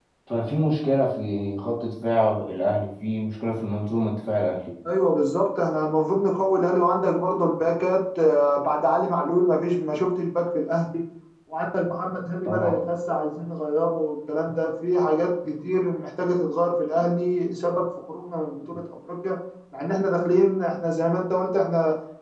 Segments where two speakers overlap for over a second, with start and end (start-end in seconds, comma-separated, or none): none